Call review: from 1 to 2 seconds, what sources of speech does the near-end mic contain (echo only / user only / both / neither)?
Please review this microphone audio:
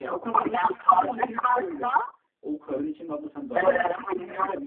both